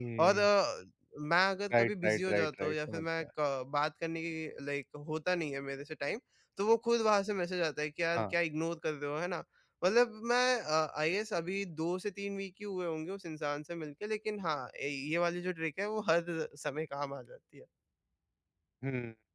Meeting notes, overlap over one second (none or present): present